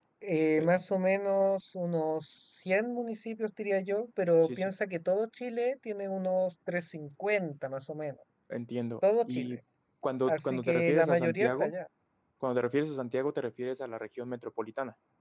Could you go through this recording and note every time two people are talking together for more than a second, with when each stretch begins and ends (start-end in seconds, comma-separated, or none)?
10.3-11.7